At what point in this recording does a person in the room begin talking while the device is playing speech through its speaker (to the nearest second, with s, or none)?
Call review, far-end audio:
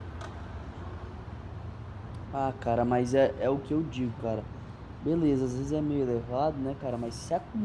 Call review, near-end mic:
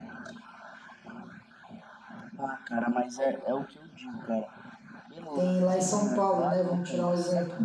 5 s